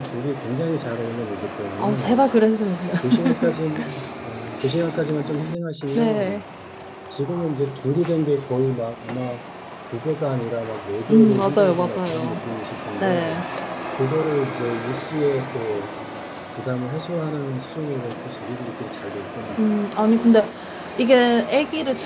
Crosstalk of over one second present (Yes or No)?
Yes